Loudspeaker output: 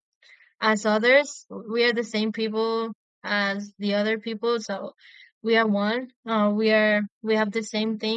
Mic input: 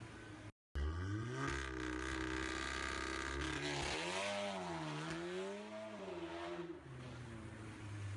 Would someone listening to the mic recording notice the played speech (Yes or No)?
No